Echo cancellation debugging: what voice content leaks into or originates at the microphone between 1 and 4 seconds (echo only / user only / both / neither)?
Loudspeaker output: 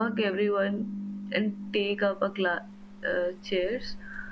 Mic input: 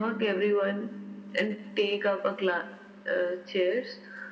echo only